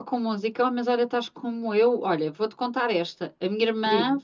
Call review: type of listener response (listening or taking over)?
listening